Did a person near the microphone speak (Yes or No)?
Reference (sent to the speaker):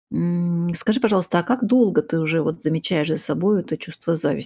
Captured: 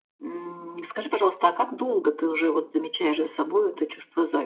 No